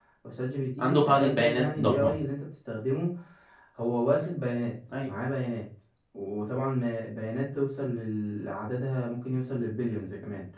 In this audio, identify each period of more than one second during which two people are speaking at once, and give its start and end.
0.8-2.1

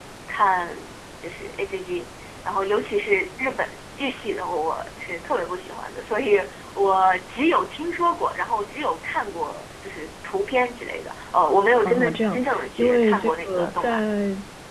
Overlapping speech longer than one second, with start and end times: 11.8-14.0

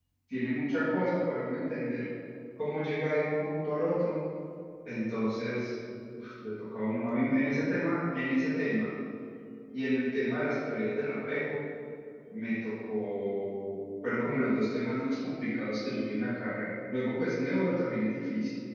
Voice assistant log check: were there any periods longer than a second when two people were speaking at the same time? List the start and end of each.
none

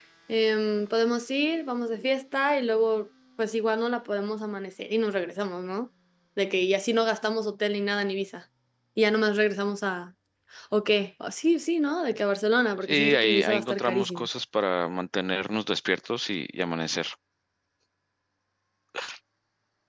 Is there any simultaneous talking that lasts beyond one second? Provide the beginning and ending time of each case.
12.8-14.3

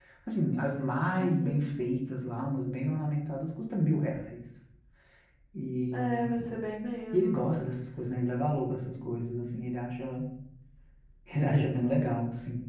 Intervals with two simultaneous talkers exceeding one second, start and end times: none

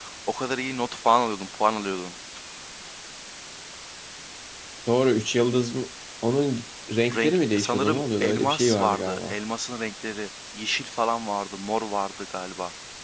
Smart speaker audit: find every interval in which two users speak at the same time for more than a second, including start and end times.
7.2-9.3

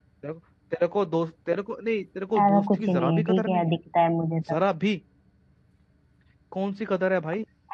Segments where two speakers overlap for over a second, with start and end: 2.4-3.7

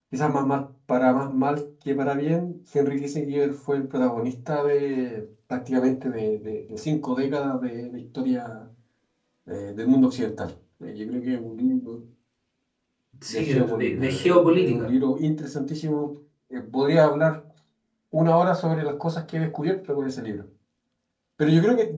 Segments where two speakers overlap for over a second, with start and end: 13.3-14.9

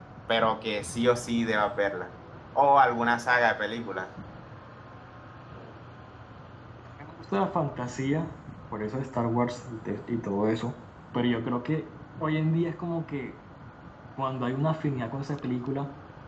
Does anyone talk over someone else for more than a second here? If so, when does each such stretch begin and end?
none

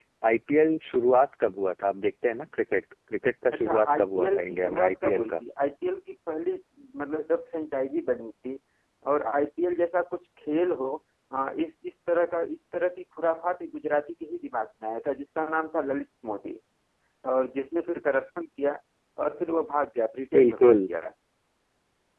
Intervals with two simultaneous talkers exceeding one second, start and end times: 3.5-5.3

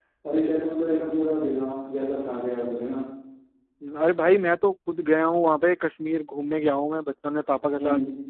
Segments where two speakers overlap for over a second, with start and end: none

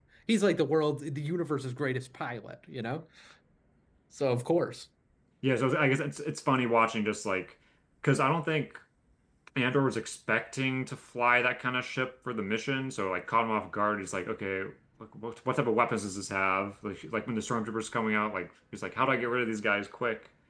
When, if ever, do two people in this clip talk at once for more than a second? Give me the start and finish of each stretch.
none

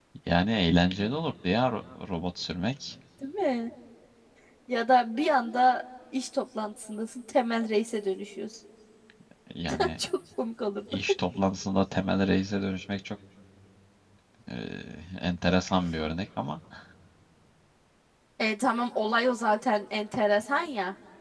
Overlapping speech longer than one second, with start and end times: none

